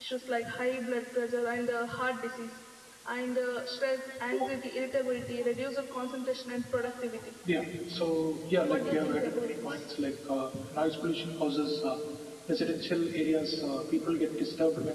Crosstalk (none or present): present